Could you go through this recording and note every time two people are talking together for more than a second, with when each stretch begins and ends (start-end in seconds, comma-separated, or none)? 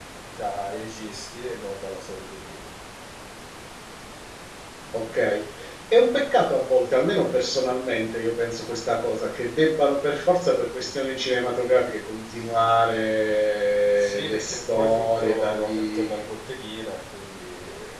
13.9-16.2